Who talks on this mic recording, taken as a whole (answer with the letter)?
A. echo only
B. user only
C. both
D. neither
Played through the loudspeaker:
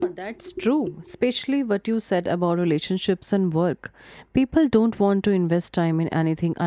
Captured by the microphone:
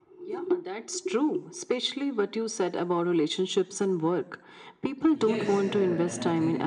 C